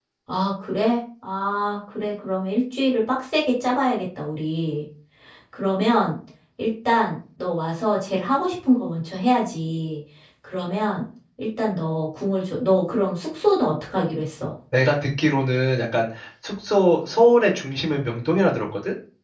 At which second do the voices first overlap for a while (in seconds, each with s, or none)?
none